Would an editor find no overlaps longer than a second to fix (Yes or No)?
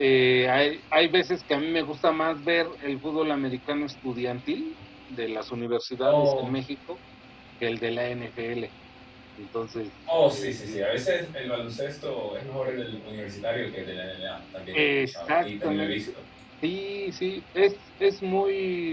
No